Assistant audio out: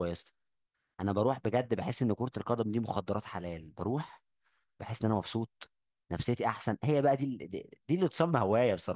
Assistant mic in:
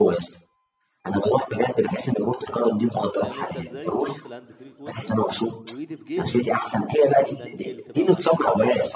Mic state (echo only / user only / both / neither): both